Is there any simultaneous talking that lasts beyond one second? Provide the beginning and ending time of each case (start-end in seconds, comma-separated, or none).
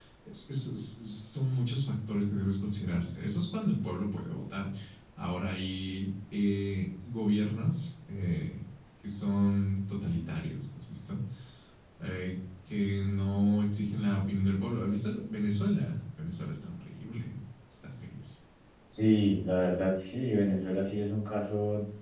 none